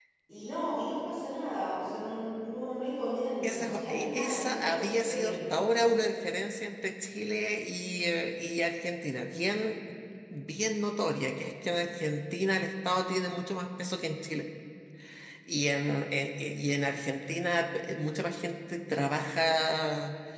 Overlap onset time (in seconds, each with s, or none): 3.4 s